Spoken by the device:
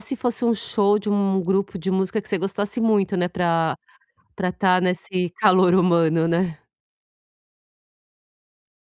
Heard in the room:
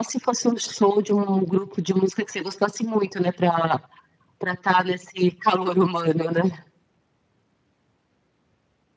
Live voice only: none

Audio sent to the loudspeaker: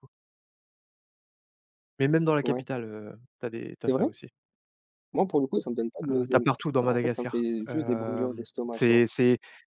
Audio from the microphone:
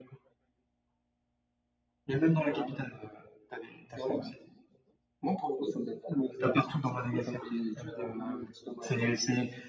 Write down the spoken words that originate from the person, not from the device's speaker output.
none

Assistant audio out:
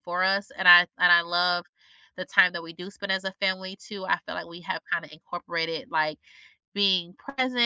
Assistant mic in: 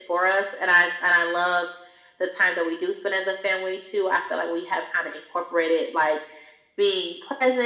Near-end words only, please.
none

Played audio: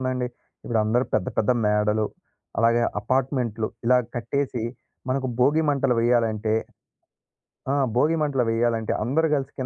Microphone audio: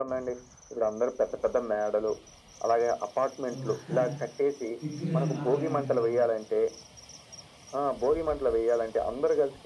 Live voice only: ఓహ్! అంటే తి తినడం మాత్రమే అంటారనమాట.

